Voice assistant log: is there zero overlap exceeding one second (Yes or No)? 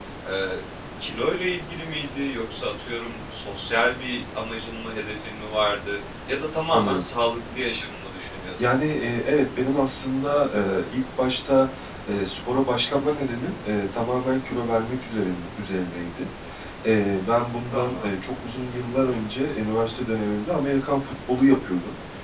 Yes